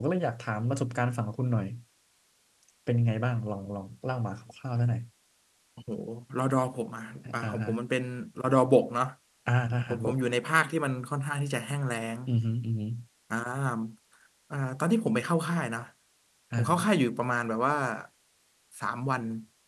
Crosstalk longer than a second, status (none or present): none